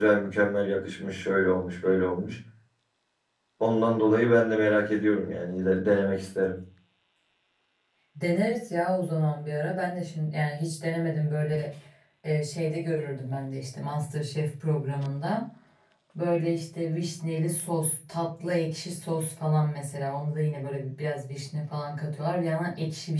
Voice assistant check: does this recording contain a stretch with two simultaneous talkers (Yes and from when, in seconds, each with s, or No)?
No